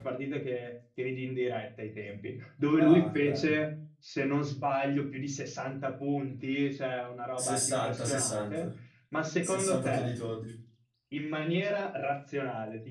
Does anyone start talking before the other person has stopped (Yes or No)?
Yes